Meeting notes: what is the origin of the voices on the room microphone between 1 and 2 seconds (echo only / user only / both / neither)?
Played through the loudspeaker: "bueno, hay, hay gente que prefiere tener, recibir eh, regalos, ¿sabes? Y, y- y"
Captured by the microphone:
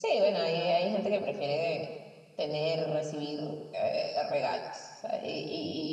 echo only